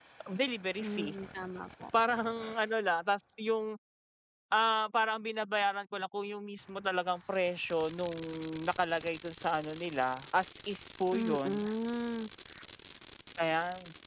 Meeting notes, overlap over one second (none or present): none